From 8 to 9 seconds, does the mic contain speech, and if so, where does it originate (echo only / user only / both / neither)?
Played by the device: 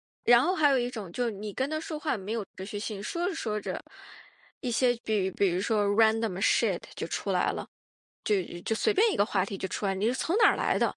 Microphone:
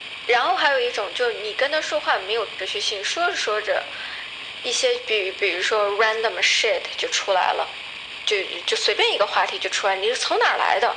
echo only